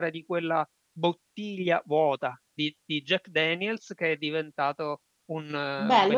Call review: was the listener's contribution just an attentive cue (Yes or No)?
No